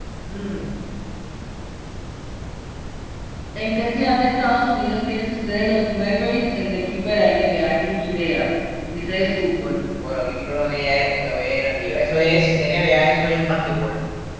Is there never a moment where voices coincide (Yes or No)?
Yes